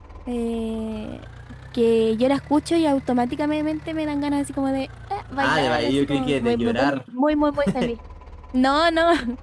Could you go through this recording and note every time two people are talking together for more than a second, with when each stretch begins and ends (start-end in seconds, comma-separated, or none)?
5.4-7.0